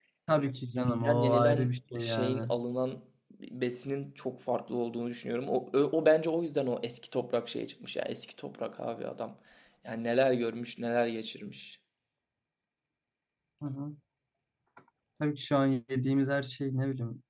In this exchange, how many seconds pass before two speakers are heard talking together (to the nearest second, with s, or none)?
1 s